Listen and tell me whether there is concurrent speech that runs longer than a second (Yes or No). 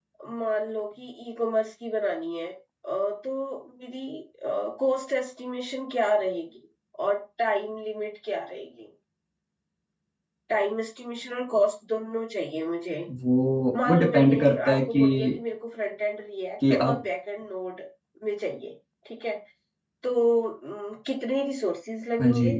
Yes